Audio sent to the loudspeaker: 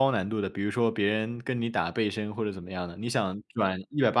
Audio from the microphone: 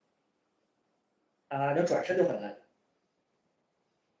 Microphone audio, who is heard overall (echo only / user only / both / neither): user only